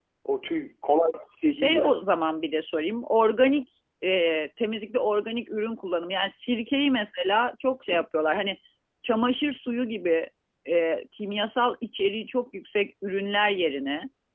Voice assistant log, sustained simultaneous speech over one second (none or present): none